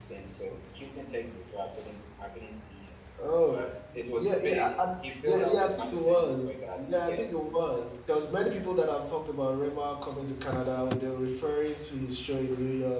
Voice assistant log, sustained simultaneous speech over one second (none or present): present